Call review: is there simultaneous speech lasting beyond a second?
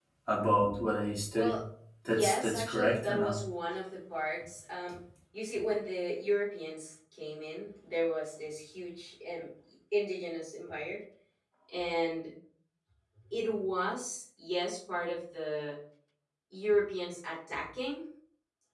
Yes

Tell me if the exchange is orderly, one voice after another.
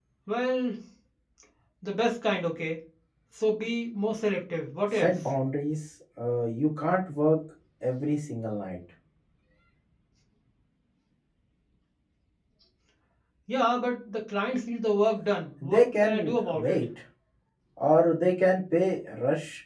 No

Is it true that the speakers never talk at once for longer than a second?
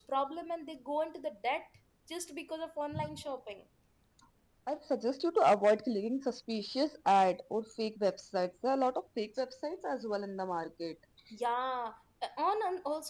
Yes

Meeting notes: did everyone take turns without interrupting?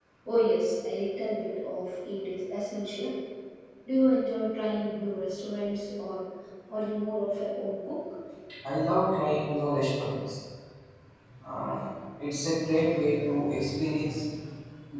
Yes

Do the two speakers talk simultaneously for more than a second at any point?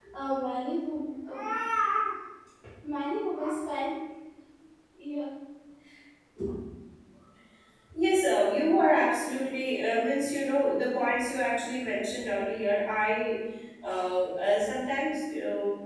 No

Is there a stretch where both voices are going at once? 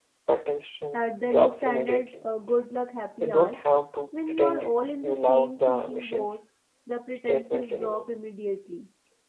Yes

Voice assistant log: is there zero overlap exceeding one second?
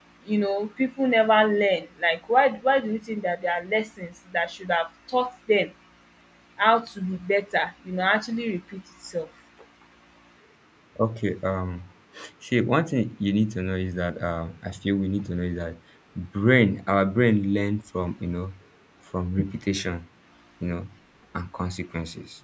Yes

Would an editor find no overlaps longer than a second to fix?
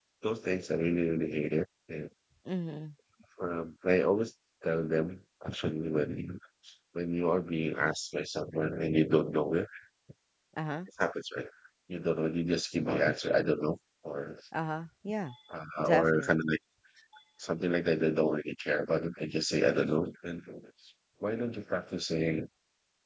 Yes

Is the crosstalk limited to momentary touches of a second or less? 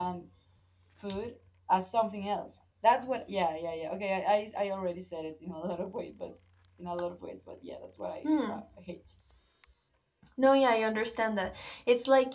Yes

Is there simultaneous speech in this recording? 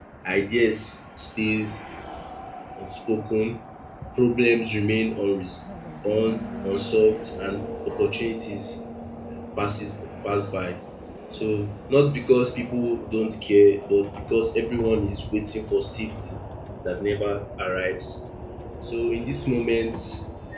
No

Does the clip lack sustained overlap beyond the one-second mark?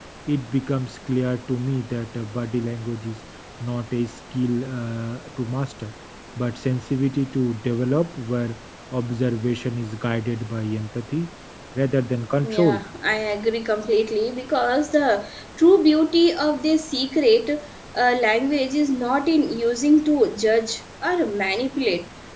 Yes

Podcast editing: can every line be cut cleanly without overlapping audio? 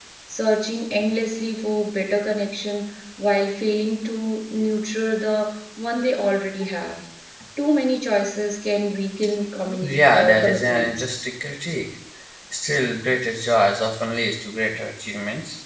No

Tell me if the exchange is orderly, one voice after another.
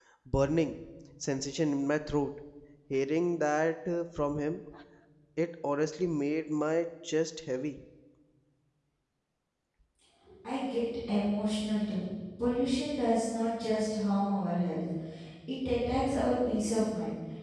Yes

